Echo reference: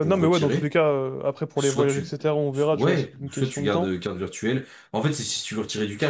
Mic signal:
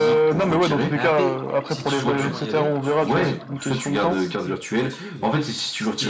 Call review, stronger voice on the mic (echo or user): echo